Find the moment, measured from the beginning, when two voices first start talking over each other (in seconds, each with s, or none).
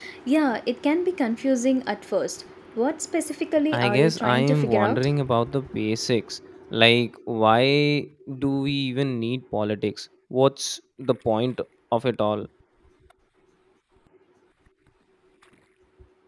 3.7 s